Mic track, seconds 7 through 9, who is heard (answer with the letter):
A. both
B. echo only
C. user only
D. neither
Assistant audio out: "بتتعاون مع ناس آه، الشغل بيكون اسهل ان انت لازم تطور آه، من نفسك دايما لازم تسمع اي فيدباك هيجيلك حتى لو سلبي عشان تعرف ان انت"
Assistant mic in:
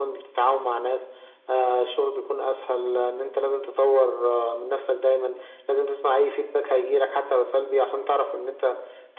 B